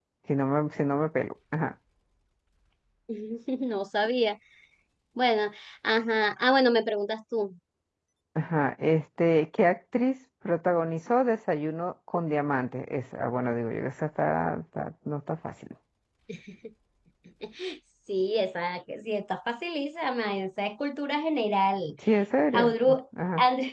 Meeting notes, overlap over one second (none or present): none